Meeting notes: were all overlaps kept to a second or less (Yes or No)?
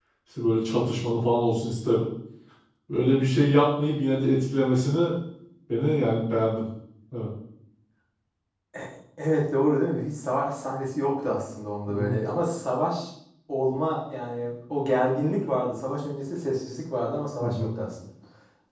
Yes